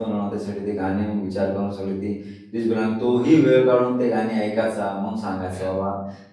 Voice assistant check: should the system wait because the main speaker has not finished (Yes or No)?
Yes